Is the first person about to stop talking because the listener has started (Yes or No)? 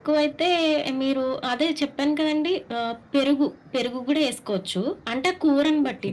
No